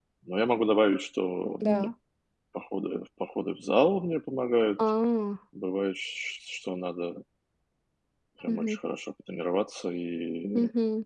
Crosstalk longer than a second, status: none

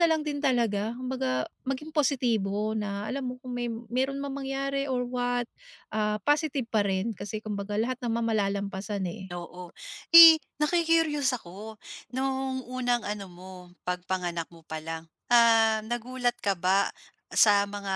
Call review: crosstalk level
none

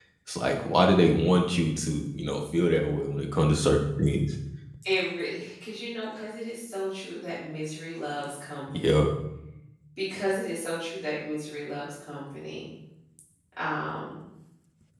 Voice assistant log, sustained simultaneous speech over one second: none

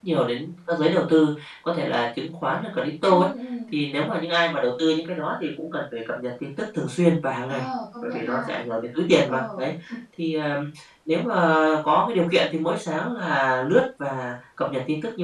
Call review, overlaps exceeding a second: none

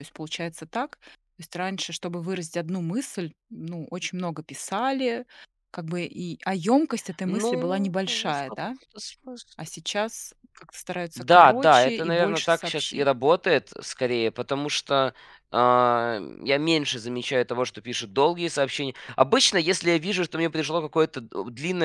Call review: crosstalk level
present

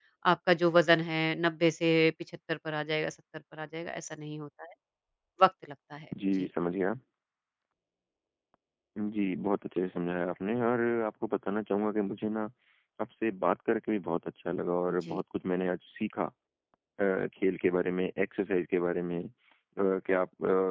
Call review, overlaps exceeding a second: none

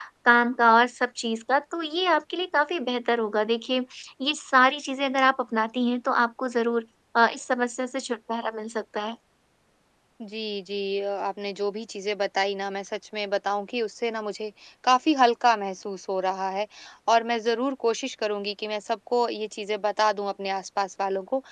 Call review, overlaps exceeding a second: none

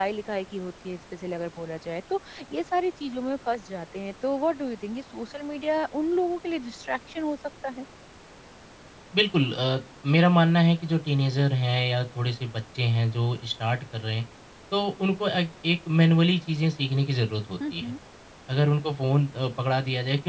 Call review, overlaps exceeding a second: none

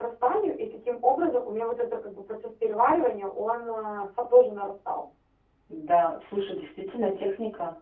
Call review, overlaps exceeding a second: none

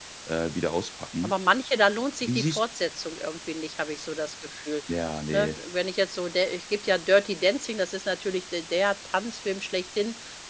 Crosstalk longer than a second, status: none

